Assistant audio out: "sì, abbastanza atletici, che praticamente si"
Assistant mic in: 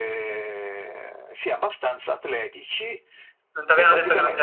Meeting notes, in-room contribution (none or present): present